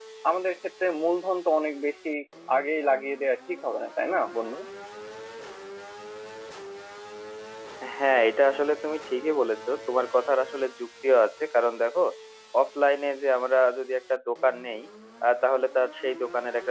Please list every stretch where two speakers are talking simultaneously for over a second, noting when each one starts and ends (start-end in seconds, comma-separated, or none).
none